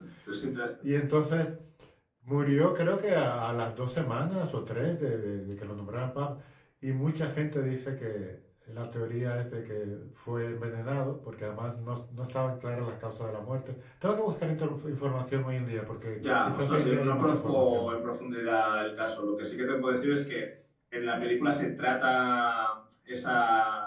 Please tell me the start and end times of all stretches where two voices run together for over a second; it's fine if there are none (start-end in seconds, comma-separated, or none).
16.2-17.9